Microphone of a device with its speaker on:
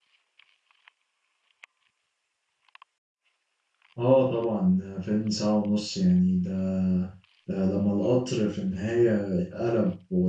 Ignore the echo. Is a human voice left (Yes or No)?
Yes